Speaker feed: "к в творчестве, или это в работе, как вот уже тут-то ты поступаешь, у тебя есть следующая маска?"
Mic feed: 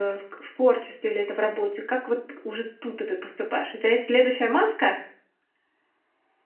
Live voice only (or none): none